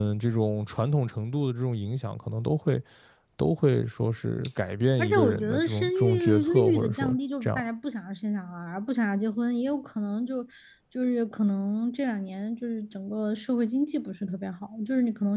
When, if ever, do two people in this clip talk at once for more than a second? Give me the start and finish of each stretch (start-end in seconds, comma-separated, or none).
5.0-7.6